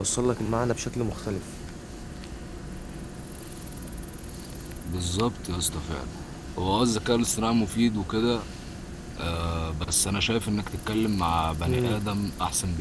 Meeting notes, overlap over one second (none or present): none